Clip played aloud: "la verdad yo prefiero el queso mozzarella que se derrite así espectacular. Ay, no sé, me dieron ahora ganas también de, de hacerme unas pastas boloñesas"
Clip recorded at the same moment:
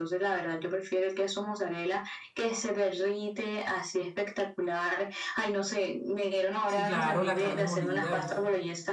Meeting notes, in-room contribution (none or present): present